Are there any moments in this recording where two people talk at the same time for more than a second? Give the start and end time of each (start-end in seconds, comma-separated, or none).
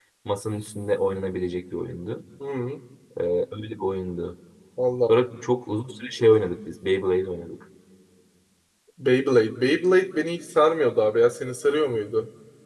none